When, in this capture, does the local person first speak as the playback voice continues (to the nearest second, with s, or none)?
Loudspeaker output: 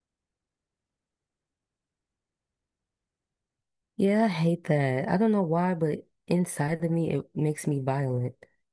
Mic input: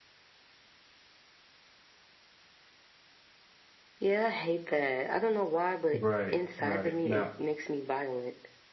6 s